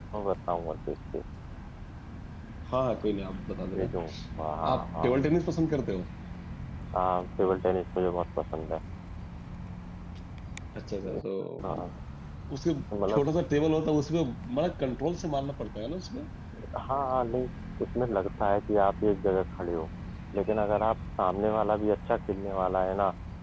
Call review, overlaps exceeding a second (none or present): none